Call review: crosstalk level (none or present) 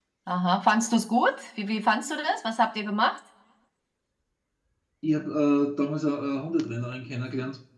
none